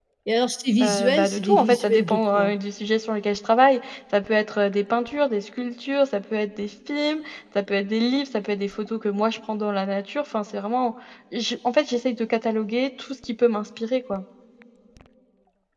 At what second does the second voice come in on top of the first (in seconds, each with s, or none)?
0.8 s